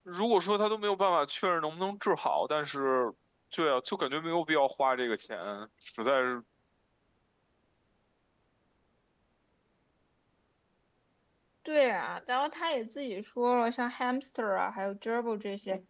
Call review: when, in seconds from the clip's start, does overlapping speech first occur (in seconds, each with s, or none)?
none